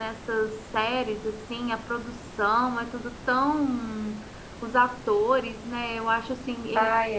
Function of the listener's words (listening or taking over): listening